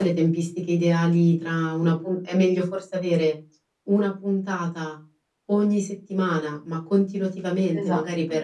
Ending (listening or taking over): listening